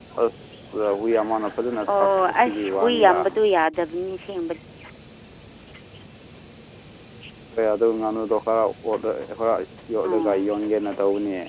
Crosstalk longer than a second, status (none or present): present